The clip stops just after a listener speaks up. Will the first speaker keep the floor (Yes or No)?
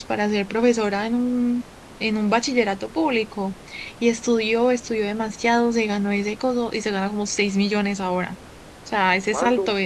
Yes